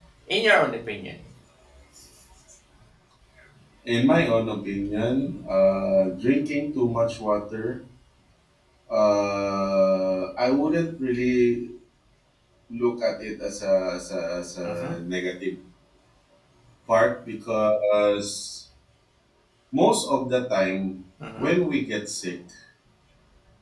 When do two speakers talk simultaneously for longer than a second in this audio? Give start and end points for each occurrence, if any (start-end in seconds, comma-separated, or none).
none